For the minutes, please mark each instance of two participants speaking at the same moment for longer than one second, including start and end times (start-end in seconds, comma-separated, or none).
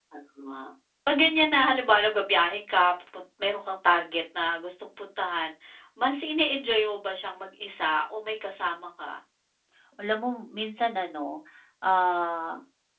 none